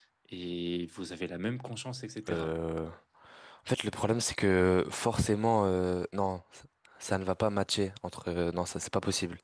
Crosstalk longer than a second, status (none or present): none